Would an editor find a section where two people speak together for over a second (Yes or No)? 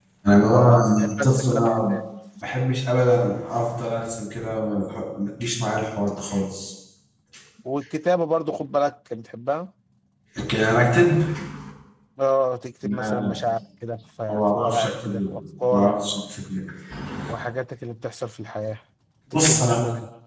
Yes